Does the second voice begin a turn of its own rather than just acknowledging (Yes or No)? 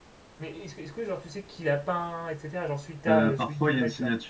Yes